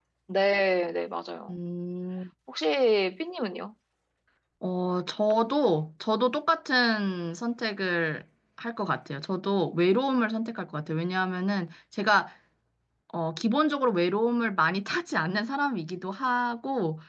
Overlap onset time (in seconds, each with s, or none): none